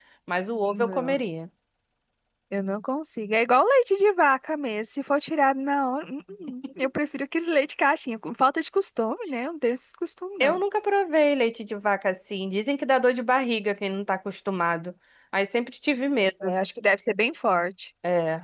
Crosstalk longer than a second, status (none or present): none